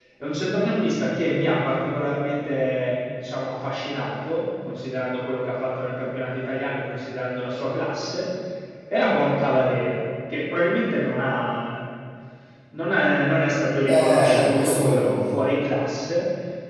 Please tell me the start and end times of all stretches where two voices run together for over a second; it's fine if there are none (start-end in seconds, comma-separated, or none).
13.8-15.3